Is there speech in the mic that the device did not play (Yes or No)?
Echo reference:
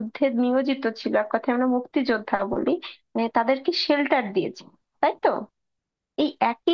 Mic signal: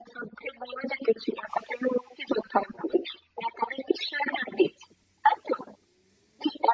No